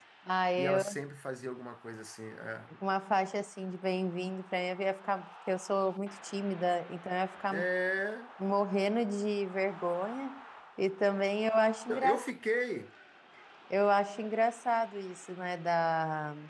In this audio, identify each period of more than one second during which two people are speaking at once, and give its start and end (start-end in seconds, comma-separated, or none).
none